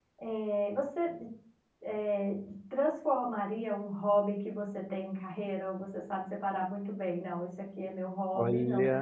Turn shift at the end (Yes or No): No